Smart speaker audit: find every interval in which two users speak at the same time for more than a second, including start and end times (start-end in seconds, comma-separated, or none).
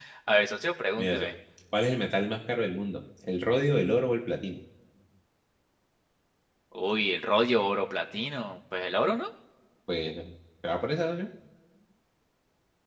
none